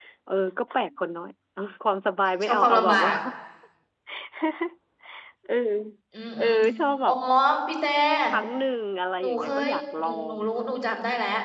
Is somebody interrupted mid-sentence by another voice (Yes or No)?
Yes